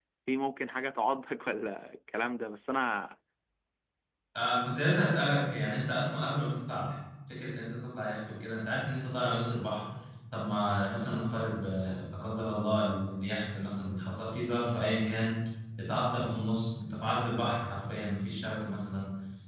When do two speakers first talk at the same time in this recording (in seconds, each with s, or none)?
none